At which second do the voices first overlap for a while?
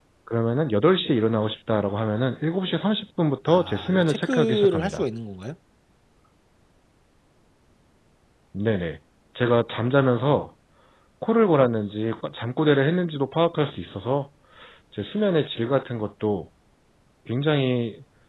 3.5 s

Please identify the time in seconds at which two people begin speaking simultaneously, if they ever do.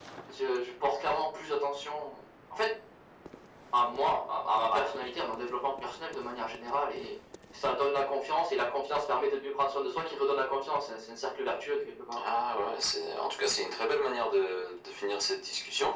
none

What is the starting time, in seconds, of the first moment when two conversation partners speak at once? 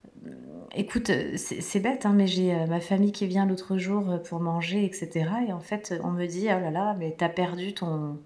none

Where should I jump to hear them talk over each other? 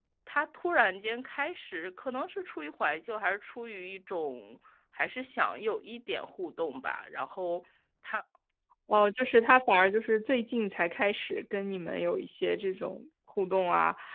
none

